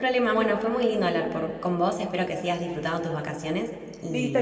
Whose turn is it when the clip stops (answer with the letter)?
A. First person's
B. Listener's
B